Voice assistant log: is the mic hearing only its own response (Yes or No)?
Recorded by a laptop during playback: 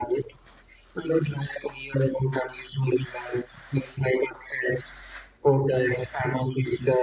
Yes